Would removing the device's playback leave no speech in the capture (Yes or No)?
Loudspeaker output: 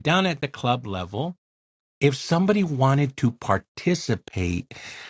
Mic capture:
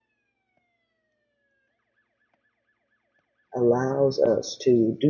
No